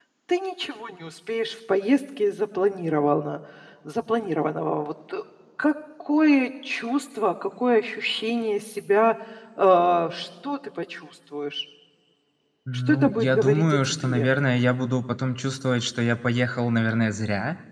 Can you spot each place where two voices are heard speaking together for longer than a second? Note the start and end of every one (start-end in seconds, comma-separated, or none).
12.9-14.3